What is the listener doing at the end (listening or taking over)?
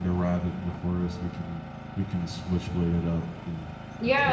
taking over